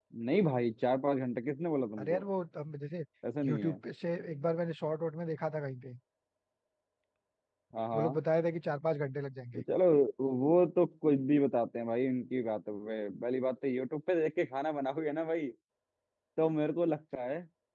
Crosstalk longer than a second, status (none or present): none